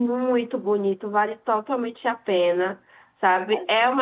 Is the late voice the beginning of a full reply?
No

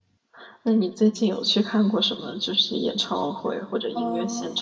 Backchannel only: No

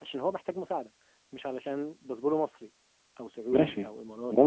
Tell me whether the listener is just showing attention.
No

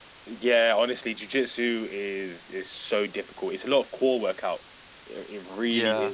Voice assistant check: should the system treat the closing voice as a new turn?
No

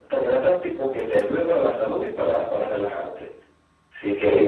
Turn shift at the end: No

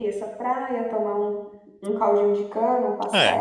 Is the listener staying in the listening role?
No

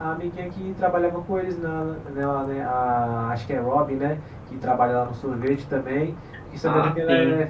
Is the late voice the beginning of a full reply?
No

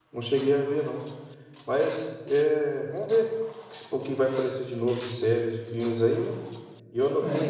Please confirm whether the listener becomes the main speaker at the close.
No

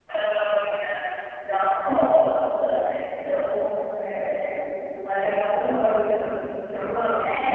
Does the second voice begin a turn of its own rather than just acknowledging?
Yes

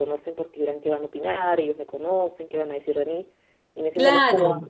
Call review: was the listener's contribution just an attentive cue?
Yes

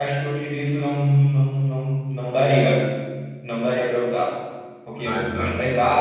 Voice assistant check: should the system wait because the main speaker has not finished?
Yes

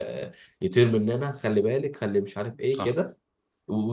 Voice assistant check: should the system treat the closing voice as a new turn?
No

